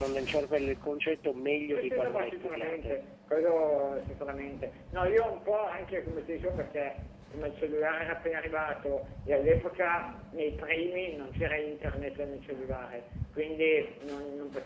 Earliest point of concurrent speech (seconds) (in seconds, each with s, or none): 1.7 s